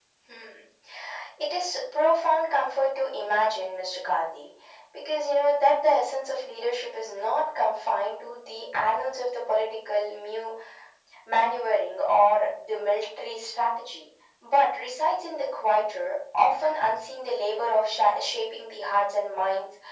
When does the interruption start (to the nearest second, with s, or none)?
none